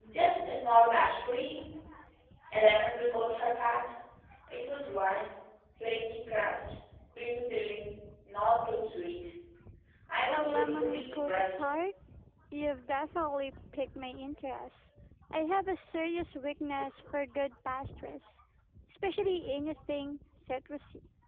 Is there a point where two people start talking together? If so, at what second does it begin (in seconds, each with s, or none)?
10.3 s